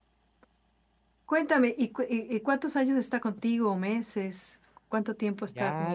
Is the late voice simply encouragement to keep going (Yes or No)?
No